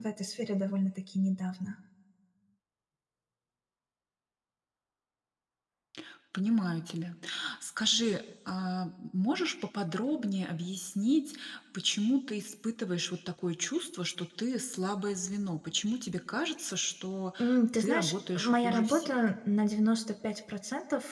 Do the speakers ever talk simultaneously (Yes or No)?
Yes